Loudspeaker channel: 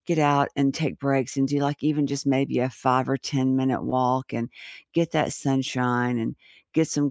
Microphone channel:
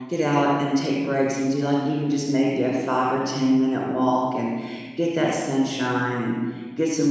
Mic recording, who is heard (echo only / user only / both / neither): echo only